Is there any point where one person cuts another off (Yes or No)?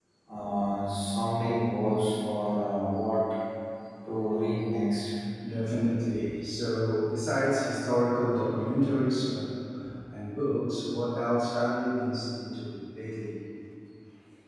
No